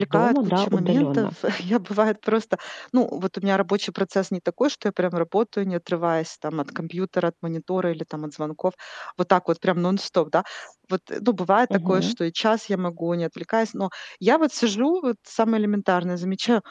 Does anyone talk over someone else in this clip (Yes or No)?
Yes